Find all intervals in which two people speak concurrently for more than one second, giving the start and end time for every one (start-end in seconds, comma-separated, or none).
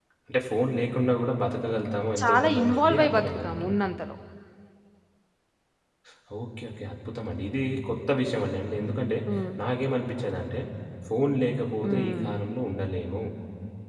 2.2-3.9